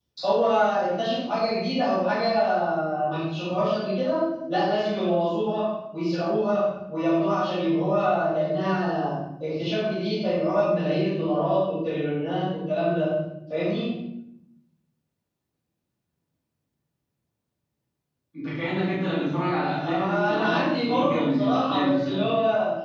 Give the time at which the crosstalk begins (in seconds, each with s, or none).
19.8 s